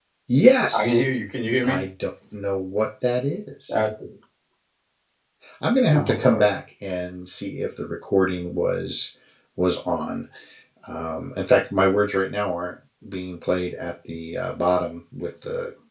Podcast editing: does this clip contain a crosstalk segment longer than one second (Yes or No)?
No